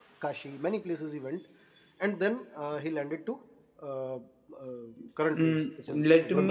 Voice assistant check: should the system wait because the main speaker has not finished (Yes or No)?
No